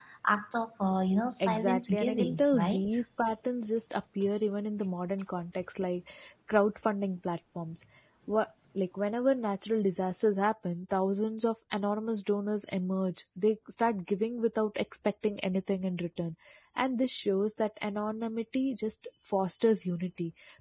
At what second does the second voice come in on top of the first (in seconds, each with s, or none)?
1.4 s